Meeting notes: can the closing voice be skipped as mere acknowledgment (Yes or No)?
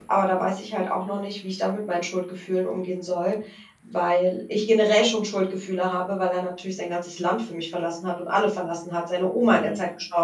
Yes